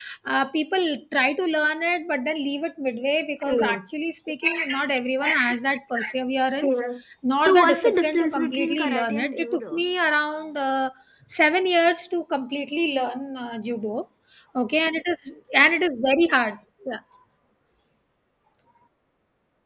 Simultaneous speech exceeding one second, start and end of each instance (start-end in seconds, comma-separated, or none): 7.4-9.8